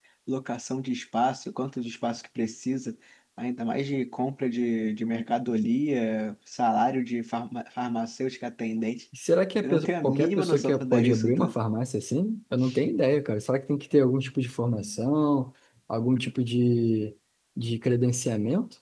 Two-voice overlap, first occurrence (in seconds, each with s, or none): 9.6 s